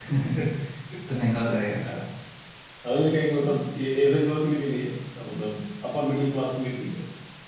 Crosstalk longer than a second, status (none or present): none